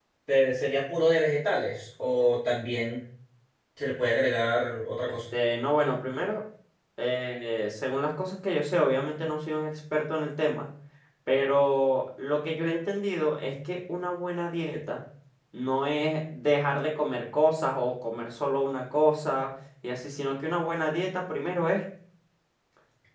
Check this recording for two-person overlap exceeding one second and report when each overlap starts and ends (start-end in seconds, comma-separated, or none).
none